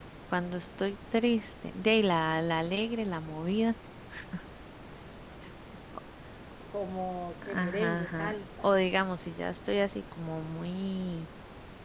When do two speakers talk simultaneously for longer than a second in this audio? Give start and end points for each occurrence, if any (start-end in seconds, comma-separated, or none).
7.5-8.8